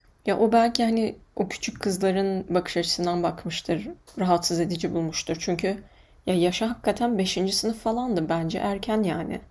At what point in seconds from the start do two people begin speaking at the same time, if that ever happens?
none

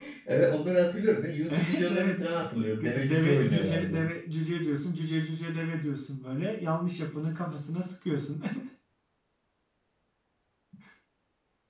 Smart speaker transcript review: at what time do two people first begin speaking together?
2 s

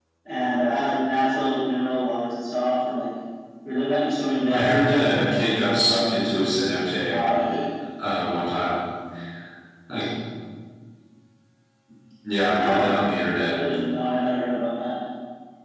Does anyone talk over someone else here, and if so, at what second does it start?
5 s

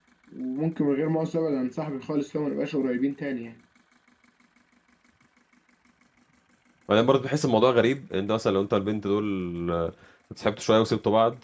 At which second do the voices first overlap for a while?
none

